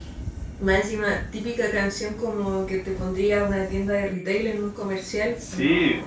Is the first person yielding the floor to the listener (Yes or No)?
Yes